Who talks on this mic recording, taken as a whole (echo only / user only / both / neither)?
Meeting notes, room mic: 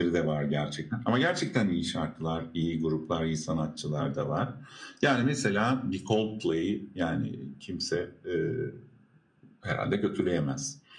echo only